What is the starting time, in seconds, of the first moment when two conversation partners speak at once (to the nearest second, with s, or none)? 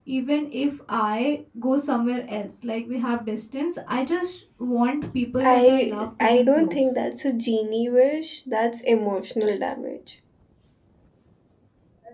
5 s